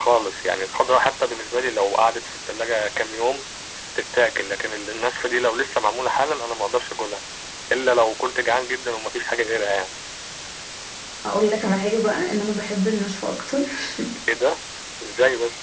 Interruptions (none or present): none